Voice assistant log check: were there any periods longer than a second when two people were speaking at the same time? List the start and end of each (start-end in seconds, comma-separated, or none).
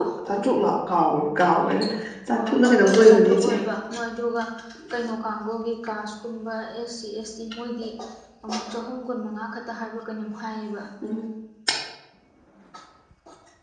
2.3-3.5